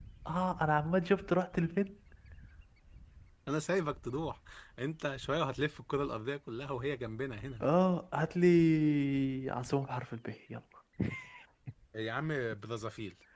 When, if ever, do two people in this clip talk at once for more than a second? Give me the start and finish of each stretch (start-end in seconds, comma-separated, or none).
none